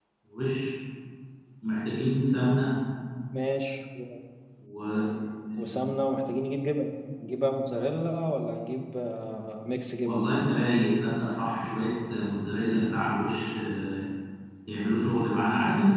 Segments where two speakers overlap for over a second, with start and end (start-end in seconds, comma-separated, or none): none